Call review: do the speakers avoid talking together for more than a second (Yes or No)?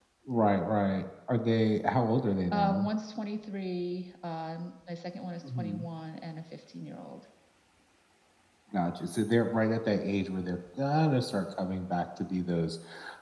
Yes